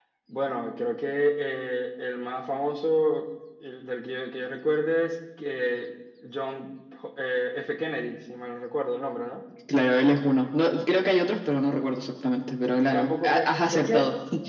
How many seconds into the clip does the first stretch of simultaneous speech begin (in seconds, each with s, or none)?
12.9 s